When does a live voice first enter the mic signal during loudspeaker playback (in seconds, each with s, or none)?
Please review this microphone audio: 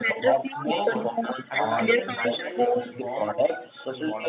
0.5 s